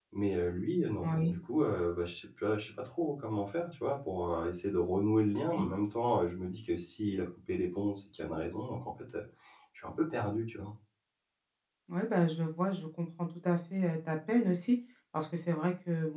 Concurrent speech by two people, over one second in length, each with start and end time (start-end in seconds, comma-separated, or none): none